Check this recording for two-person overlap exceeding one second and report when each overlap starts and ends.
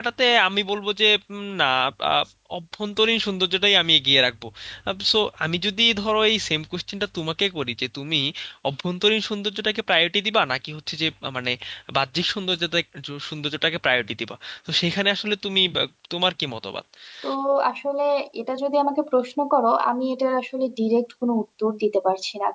none

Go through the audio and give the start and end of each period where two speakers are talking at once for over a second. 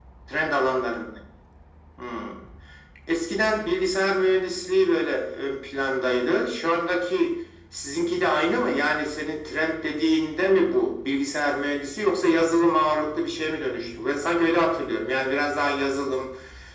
none

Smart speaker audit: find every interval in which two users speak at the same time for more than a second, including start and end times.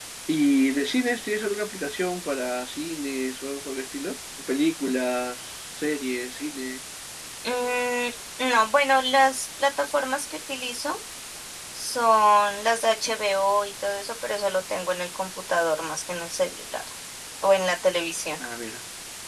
none

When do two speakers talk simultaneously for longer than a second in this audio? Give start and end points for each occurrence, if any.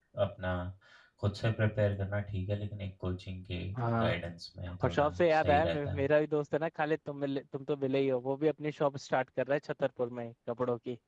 4.8-6.0

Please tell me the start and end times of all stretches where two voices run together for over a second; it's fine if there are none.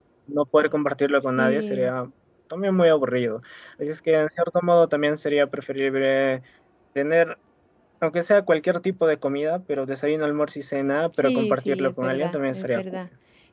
11.2-12.8

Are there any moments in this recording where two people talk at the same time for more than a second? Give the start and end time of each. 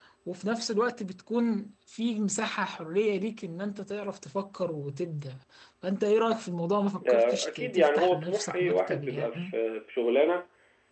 7.0-9.5

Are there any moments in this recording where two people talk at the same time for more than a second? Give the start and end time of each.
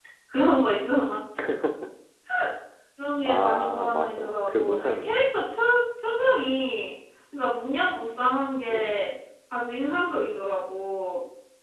3.3-5.3

